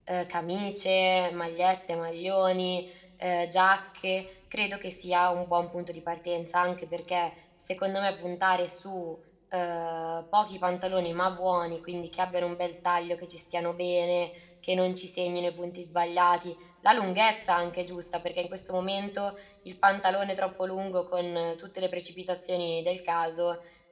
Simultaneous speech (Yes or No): No